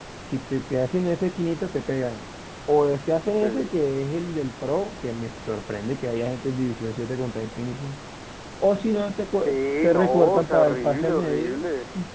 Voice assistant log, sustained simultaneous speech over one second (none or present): present